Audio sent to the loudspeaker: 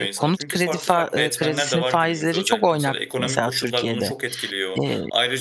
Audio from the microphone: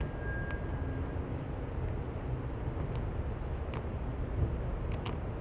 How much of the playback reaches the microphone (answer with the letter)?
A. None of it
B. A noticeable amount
A